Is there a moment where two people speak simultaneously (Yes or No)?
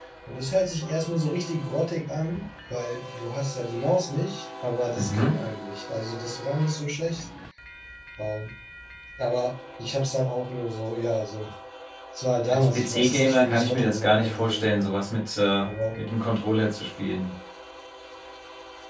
Yes